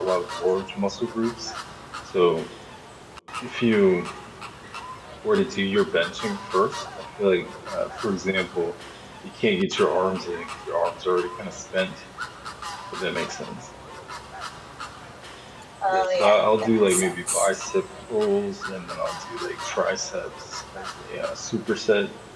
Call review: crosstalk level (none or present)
present